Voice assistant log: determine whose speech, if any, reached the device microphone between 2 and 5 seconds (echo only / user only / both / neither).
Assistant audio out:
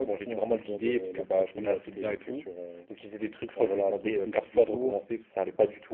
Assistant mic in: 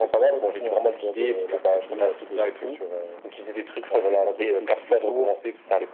echo only